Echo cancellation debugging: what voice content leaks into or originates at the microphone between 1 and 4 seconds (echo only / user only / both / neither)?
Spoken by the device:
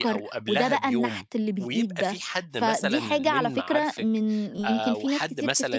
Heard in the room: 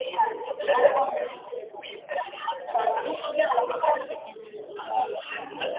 echo only